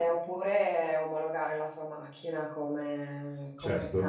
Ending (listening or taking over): listening